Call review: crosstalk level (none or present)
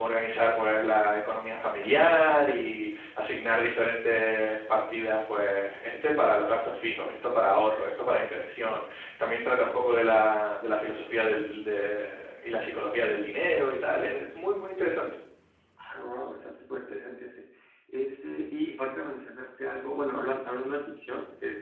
none